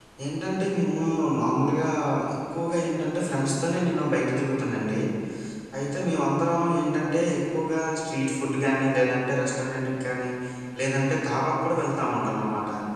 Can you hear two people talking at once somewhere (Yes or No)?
No